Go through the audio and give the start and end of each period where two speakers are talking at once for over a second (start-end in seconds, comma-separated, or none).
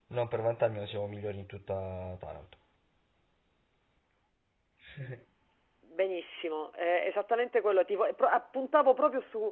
none